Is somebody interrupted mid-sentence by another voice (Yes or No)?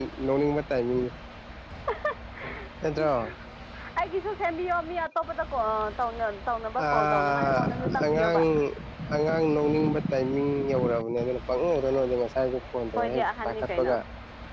Yes